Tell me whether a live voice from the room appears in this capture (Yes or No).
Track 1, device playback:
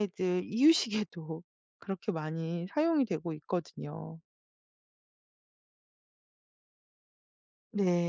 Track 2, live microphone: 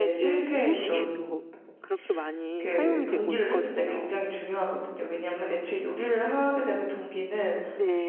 Yes